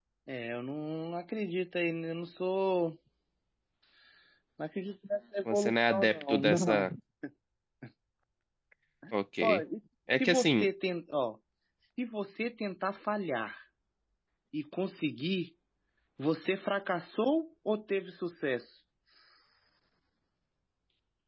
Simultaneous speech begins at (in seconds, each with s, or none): 5.5 s